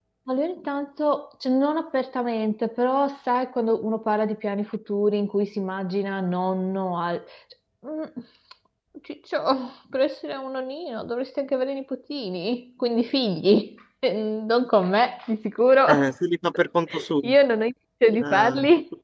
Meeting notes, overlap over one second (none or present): none